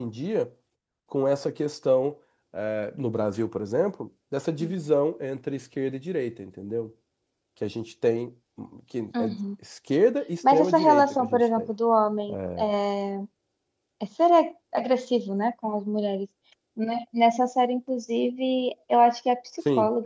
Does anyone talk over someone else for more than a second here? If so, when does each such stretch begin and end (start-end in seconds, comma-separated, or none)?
10.5-11.7